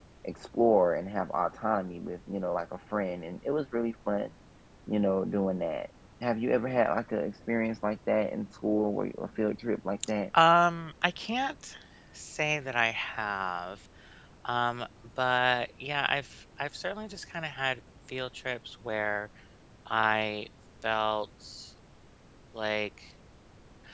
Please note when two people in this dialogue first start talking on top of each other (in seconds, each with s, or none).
none